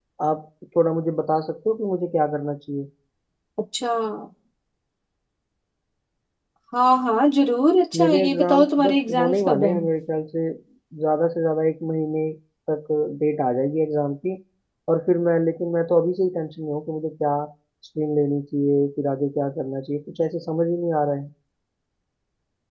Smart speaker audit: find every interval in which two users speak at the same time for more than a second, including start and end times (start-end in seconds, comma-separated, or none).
8.0-9.8